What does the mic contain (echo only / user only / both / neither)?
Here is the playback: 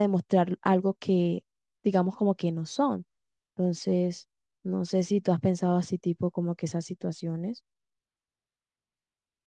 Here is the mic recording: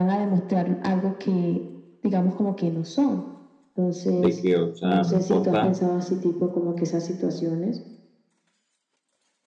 both